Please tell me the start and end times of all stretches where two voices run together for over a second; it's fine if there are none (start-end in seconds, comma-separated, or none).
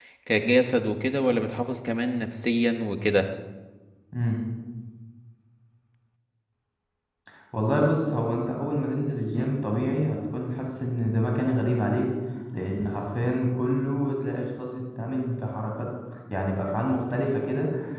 none